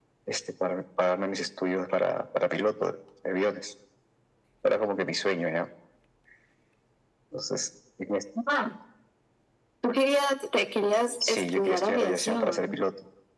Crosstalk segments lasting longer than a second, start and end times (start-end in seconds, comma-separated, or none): 11.3-12.7